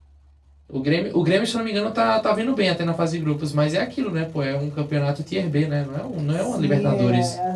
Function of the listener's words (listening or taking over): taking over